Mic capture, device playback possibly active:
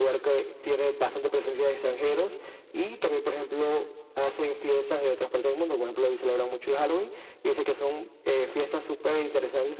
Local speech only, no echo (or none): none